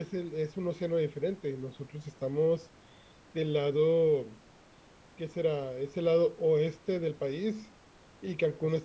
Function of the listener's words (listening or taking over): listening